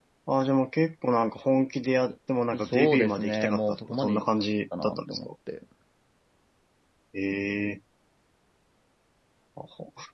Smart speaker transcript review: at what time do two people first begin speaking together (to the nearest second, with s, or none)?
3 s